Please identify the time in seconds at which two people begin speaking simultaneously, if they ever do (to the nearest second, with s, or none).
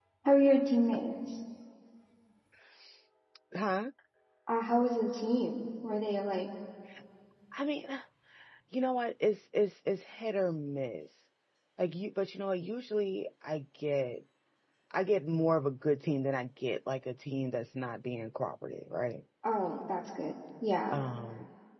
none